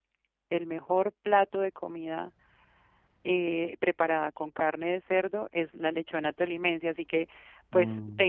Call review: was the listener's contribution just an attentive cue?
Yes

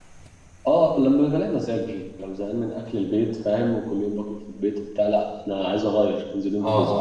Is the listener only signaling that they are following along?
No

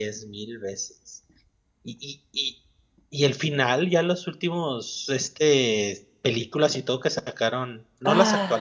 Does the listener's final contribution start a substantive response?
No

